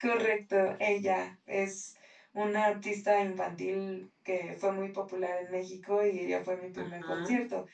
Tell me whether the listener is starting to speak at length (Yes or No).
No